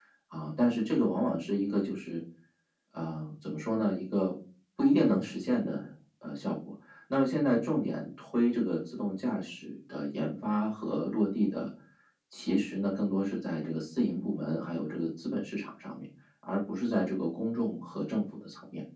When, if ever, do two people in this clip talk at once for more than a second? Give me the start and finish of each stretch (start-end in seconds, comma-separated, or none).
none